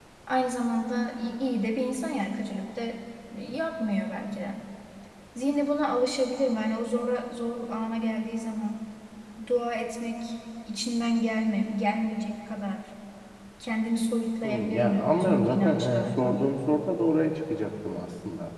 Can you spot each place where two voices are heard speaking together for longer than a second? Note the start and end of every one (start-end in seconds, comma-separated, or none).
14.4-16.4